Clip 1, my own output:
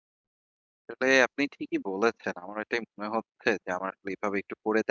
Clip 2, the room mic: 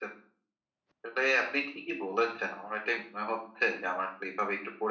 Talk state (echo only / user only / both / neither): echo only